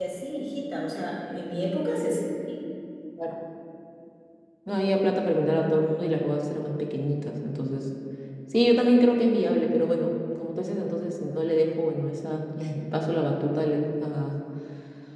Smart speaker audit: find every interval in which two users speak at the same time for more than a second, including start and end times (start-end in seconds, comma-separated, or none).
none